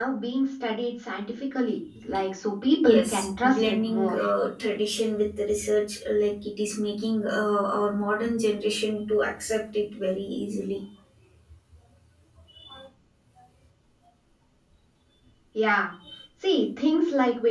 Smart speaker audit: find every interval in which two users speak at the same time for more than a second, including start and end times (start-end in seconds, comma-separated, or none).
2.8-4.2